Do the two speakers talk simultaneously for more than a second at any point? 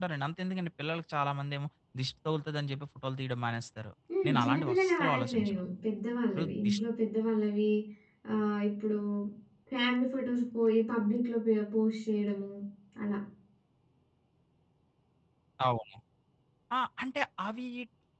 Yes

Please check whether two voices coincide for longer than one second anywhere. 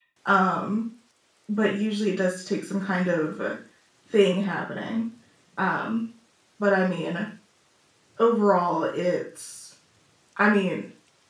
No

